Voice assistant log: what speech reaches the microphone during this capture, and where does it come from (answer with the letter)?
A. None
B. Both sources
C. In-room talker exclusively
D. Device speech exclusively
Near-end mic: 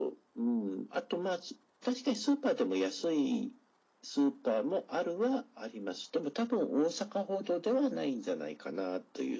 D